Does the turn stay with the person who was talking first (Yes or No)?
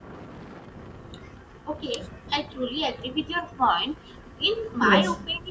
Yes